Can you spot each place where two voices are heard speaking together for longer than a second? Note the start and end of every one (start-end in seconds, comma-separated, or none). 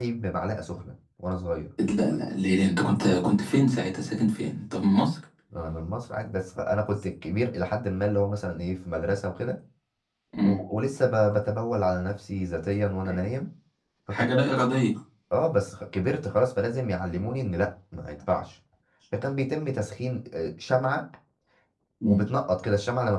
none